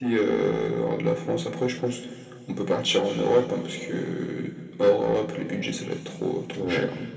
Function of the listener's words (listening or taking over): taking over